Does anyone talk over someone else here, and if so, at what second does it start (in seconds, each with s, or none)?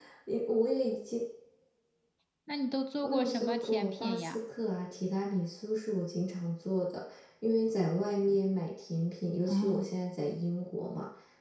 3.0 s